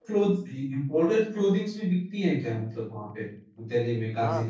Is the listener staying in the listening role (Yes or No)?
No